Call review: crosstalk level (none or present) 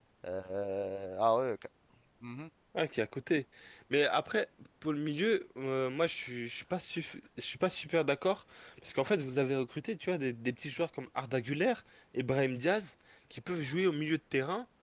none